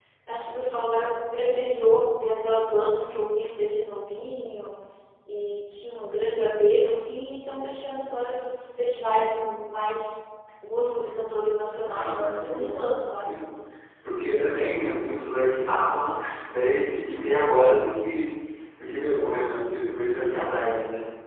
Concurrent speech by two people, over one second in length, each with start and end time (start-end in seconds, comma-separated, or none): 11.9-13.3